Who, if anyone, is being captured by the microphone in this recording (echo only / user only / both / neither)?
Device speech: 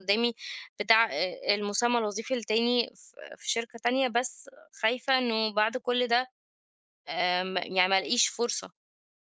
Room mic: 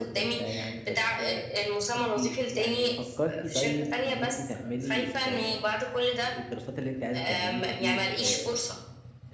both